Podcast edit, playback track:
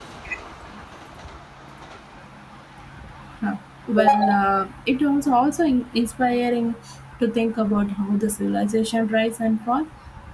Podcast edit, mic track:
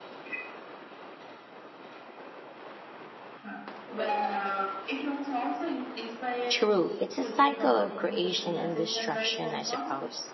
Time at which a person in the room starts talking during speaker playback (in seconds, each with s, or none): 6.5 s